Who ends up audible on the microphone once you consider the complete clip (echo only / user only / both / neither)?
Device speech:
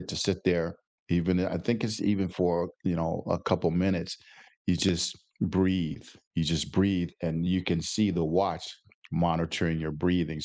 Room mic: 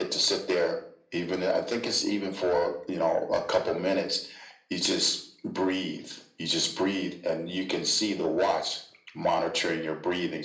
echo only